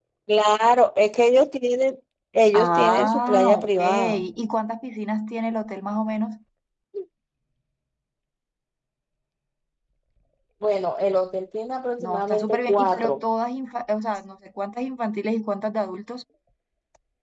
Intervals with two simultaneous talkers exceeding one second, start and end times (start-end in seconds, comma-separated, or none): 2.5-4.2, 12.0-13.2